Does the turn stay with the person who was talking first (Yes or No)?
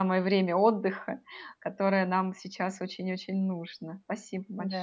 No